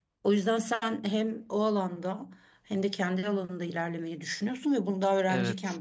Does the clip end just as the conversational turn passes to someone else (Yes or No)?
No